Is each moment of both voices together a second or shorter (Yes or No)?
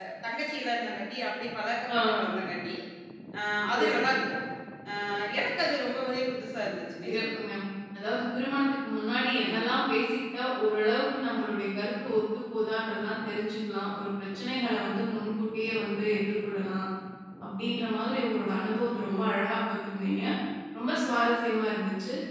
Yes